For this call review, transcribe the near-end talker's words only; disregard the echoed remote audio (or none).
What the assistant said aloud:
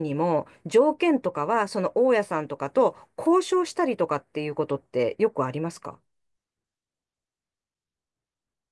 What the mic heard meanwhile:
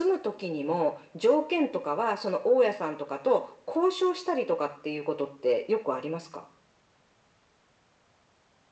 none